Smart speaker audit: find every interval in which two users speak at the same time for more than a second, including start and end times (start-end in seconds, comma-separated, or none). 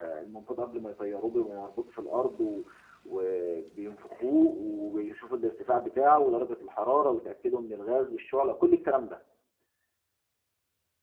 none